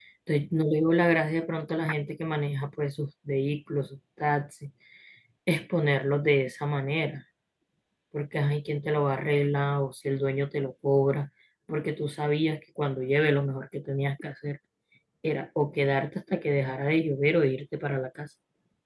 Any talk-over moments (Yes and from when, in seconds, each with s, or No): No